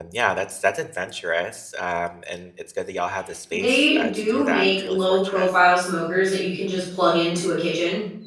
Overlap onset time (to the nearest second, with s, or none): 4 s